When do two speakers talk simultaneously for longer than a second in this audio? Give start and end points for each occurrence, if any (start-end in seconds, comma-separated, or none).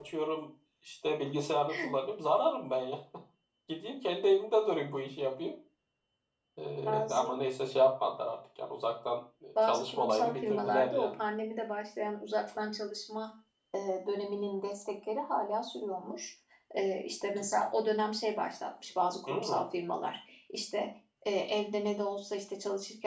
9.6-11.1